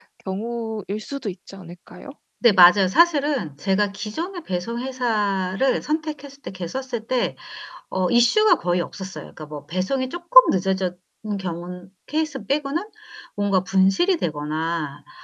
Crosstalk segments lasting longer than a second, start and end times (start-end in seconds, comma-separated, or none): none